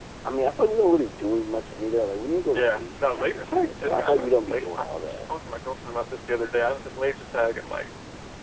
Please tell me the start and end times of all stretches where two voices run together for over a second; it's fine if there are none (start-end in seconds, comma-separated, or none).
2.5-5.3